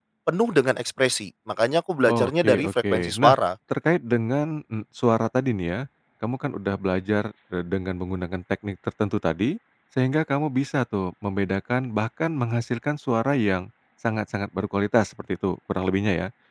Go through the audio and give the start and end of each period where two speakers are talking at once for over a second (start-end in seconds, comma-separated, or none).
2.1-3.4